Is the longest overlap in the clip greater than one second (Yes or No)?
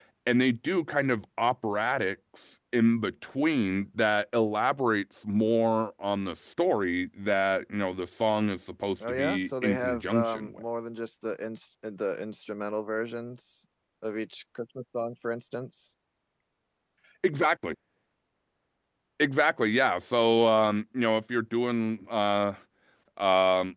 Yes